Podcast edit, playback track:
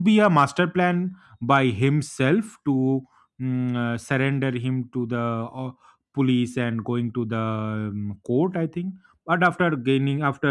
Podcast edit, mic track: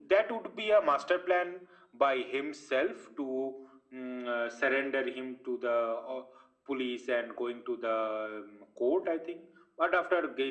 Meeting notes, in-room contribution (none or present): none